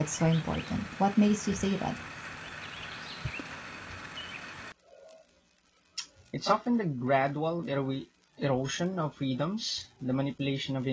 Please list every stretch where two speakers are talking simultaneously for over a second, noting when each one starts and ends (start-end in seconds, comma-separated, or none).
none